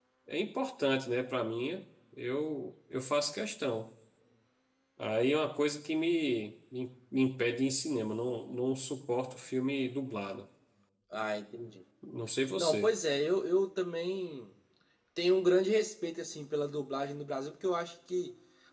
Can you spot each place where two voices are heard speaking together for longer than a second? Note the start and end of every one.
none

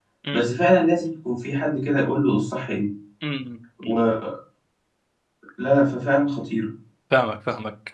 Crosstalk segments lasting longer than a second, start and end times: none

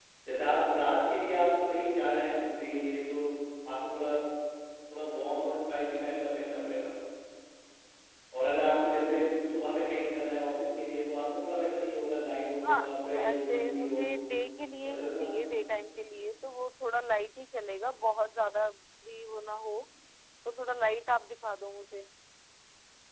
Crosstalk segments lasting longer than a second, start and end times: 12.6-14.0

